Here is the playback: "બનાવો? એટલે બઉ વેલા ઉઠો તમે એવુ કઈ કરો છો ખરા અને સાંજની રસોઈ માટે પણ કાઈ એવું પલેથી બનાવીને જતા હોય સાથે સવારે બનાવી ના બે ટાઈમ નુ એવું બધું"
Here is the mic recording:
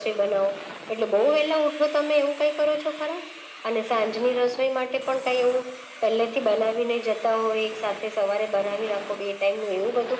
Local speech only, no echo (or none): none